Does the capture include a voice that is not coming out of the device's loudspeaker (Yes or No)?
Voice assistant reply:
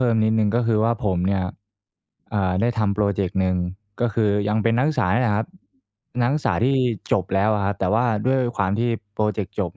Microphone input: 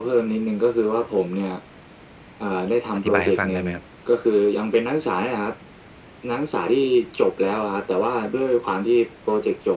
Yes